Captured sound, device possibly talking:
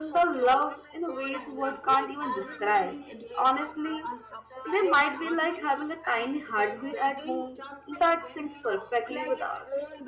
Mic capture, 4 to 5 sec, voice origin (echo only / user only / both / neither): both